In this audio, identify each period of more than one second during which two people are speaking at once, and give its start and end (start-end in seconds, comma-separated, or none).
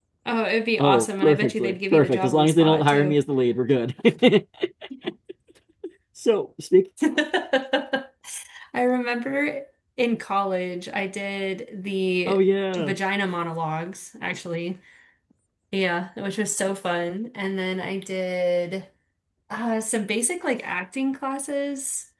0.8-3.2